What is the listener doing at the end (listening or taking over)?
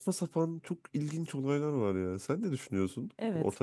taking over